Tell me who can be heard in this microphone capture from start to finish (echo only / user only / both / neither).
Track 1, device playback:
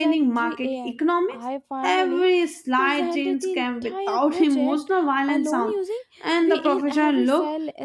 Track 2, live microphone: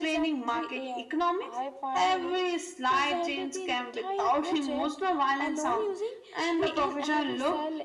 echo only